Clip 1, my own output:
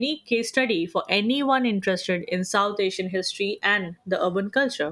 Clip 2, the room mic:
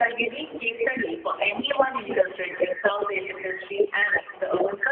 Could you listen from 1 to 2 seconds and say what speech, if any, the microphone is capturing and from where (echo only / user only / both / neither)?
echo only